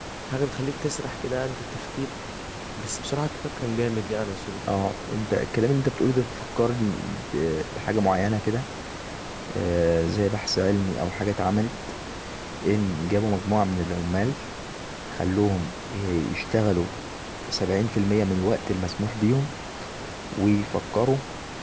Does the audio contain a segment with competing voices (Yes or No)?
No